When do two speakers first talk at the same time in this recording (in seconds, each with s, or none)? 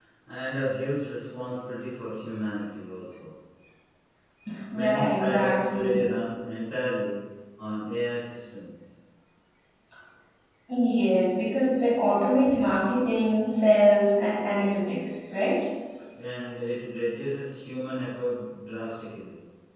4.7 s